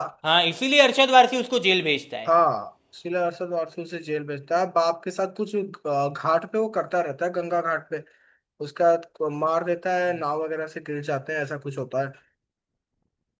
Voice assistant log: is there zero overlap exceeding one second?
Yes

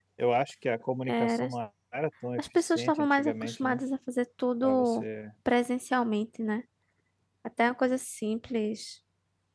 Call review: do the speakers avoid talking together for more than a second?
No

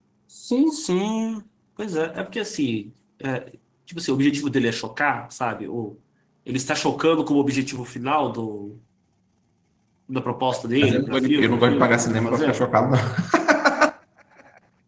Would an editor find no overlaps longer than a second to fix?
No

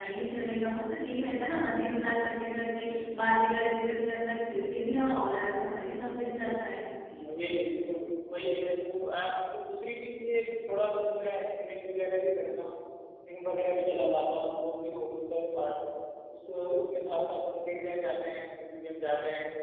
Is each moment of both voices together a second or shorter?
Yes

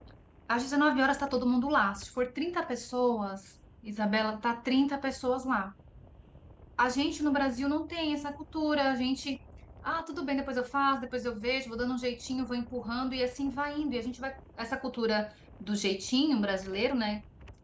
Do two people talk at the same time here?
No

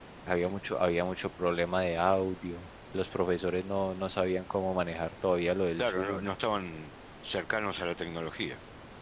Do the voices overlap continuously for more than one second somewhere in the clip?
No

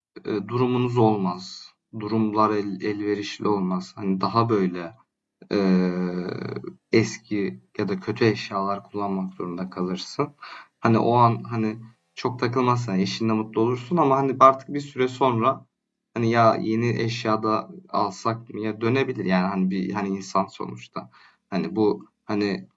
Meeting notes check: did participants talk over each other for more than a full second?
No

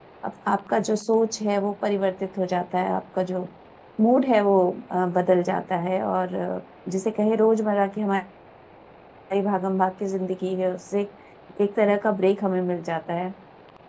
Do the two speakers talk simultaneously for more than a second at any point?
No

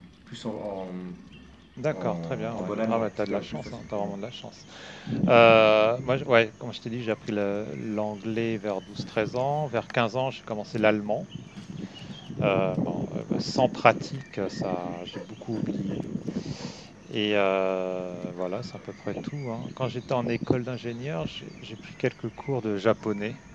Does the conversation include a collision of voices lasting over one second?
Yes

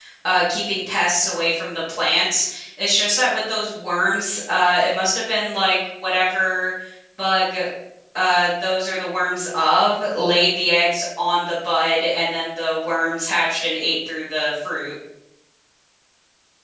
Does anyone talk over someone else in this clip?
No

